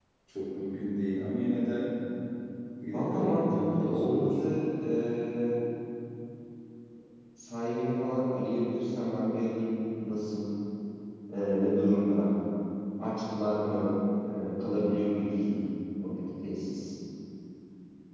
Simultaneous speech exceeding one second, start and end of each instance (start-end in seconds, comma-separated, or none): 2.8-4.4